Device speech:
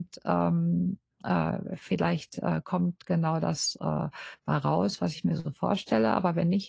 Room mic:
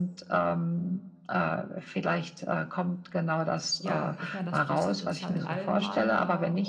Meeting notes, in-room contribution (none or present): present